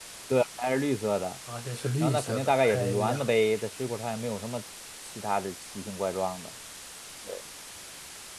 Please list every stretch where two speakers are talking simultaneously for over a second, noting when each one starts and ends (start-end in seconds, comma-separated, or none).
2.0-3.2